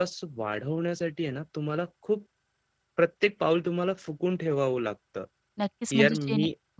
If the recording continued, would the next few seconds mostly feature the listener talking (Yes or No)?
Yes